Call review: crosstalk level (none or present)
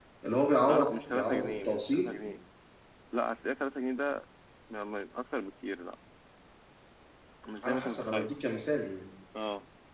present